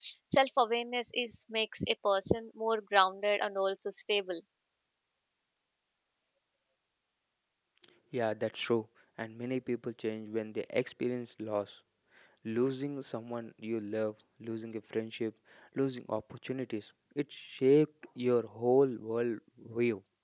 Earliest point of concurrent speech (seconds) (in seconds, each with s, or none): none